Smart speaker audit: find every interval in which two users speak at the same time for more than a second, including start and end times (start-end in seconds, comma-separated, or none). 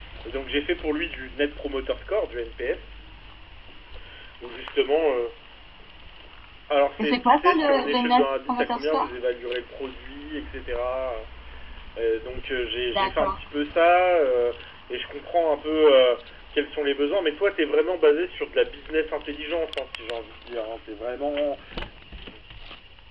7.0-9.1